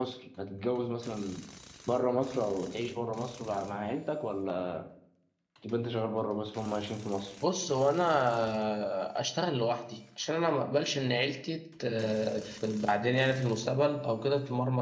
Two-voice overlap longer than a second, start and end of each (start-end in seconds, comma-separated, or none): none